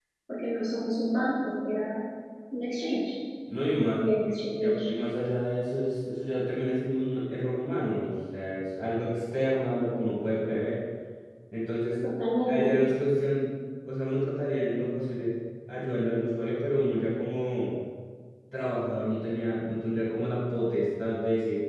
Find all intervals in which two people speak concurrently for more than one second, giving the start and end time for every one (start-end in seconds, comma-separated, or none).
none